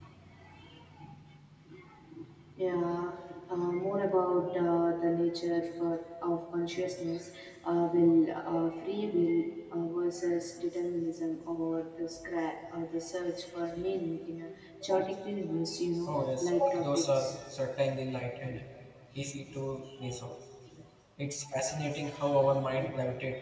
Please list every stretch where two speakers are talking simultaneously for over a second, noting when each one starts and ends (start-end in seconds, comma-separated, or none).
16.1-17.3